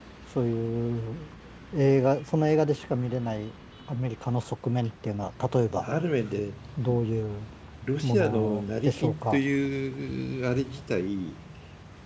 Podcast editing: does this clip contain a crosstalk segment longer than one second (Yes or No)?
Yes